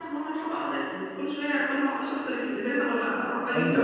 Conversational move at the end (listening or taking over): taking over